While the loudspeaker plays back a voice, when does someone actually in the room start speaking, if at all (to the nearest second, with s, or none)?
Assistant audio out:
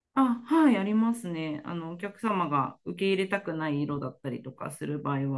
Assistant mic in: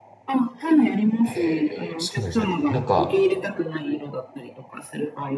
1 s